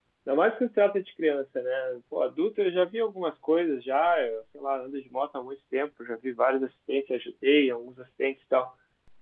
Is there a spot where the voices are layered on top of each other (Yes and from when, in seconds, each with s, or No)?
No